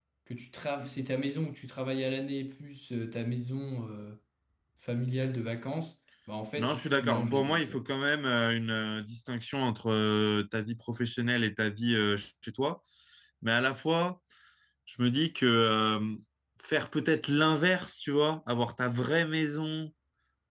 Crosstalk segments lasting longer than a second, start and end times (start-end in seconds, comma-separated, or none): 6.6-7.8